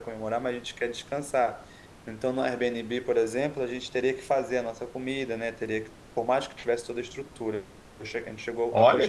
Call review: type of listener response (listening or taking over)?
taking over